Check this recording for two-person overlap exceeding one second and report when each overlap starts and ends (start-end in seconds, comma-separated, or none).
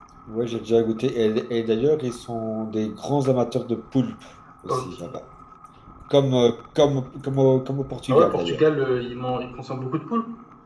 none